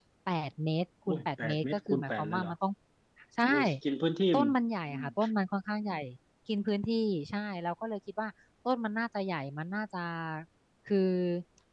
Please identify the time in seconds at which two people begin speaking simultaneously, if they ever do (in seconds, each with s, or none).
1.1 s